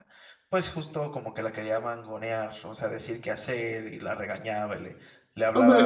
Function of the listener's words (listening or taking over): taking over